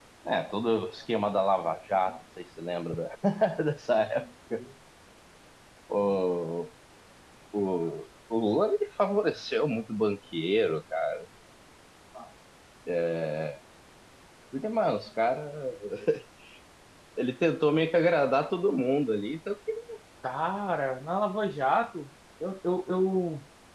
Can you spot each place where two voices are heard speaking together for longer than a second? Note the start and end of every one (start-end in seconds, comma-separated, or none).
none